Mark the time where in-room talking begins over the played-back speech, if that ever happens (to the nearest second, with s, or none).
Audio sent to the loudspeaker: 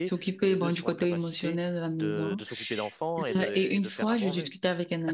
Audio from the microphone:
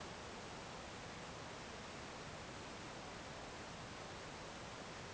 none